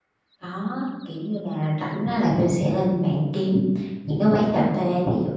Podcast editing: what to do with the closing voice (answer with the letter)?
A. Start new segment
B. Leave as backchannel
B